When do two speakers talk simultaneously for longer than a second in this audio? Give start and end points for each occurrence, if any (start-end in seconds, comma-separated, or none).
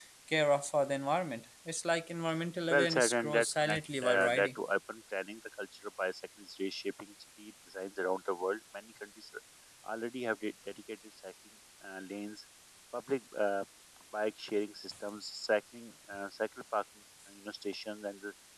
2.7-4.5